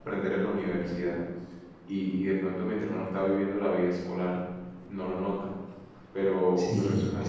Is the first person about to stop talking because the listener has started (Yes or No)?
Yes